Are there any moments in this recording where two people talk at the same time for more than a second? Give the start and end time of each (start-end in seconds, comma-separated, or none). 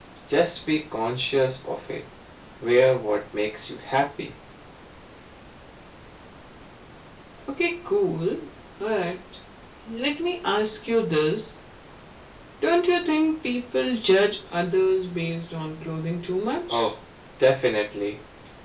none